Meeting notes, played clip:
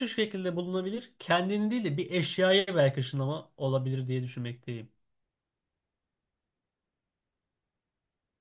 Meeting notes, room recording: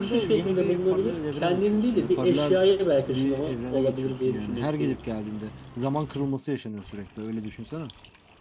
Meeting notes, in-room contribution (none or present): present